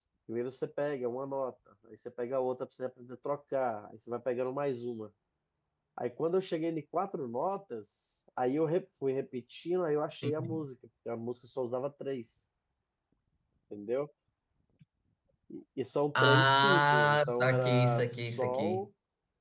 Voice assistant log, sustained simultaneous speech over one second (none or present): present